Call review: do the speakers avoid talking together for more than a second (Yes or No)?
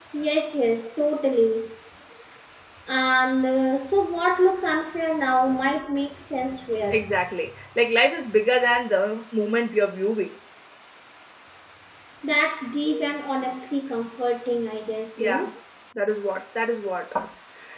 Yes